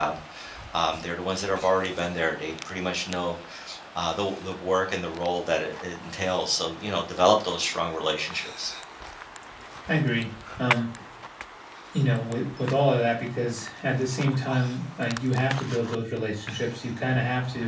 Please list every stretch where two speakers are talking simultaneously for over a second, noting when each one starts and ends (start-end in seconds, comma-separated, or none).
none